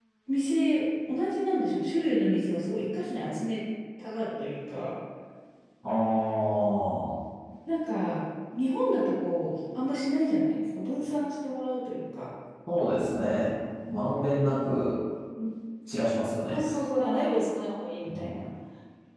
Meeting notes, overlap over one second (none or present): none